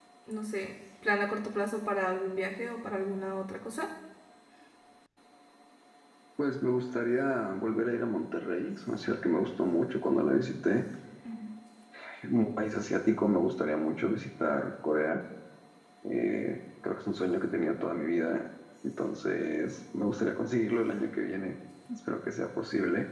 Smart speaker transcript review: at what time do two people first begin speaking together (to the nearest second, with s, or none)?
none